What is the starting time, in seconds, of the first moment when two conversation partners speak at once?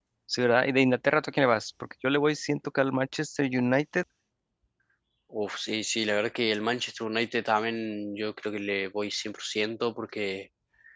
none

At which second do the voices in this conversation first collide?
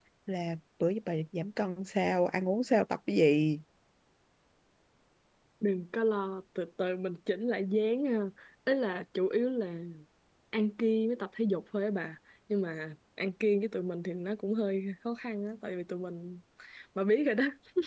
none

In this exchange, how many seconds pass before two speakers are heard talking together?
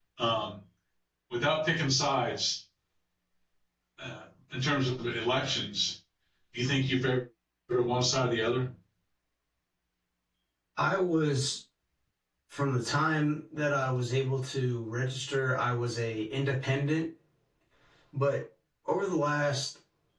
none

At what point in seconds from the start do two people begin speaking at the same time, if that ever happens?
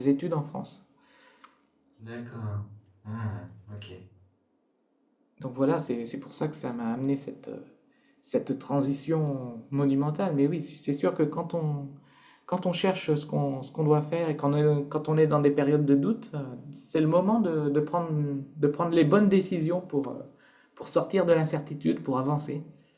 none

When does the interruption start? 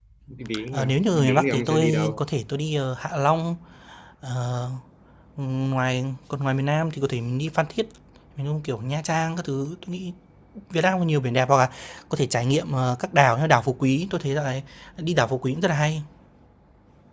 0.7 s

